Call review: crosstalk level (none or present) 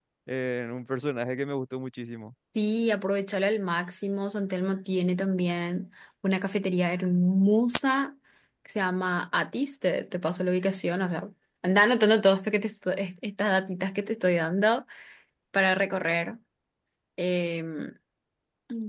none